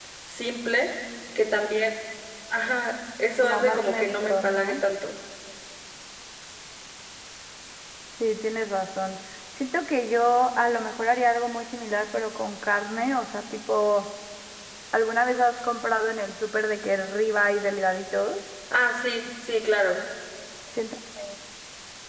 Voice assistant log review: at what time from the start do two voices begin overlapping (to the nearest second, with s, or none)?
3 s